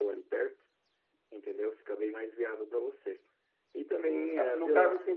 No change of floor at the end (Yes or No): No